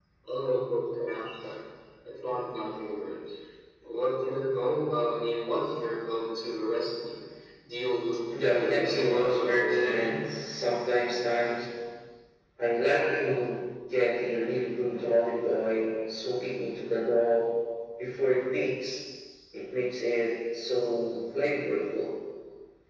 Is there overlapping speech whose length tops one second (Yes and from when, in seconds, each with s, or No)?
Yes, from 8.4 s